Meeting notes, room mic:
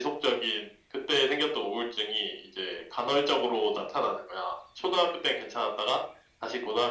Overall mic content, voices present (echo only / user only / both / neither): echo only